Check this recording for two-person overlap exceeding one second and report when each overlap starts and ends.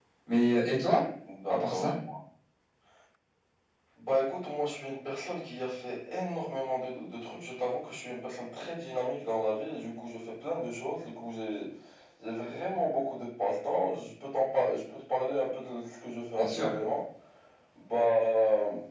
none

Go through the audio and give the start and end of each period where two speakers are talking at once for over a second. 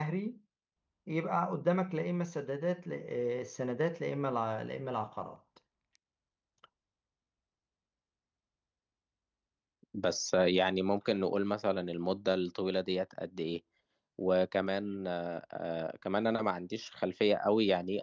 none

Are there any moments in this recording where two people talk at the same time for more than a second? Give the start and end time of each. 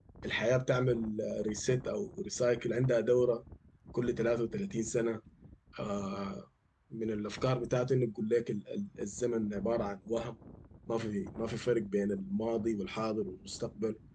none

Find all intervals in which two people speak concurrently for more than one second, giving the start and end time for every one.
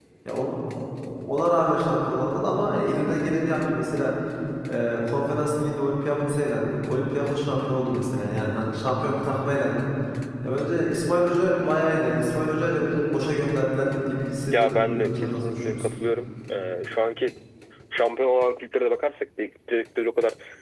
14.5-15.9

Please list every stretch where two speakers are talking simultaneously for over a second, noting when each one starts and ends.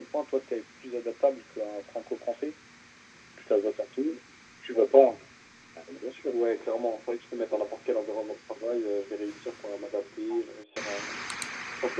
none

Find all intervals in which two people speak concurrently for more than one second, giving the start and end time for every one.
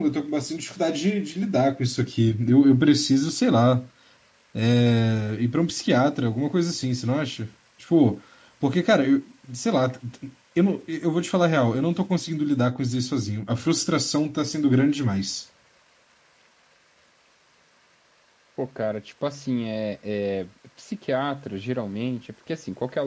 none

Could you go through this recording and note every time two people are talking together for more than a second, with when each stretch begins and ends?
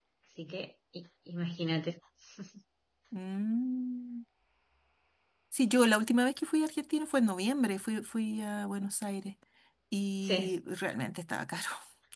none

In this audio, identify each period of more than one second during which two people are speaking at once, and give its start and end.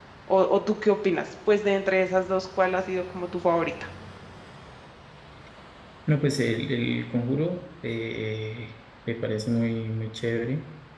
none

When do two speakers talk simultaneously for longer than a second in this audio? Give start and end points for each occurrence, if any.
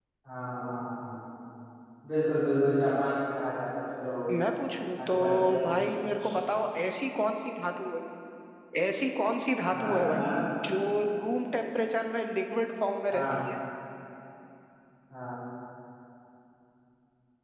5.1-6.3

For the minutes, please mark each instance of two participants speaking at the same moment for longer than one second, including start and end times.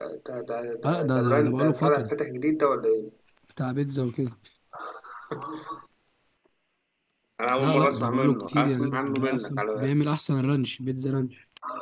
0.8-2.1, 7.6-9.9

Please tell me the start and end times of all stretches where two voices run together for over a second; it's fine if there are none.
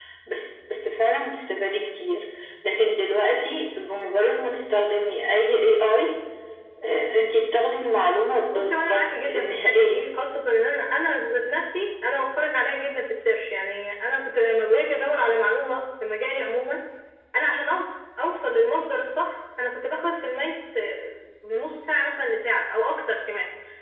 8.5-10.0

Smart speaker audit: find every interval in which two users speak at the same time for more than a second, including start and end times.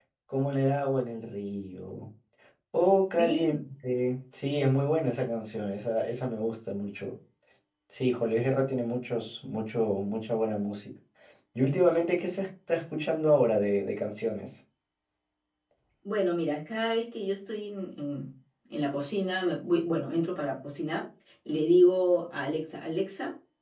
none

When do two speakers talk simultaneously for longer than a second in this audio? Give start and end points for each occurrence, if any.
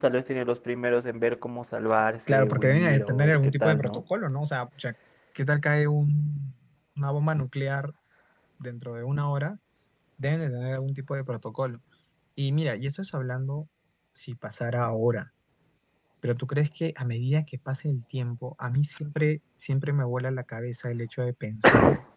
2.3-4.0

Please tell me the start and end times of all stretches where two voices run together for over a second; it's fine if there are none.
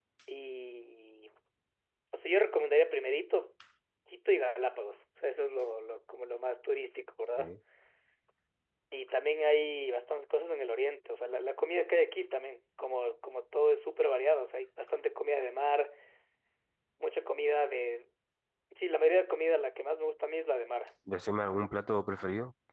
none

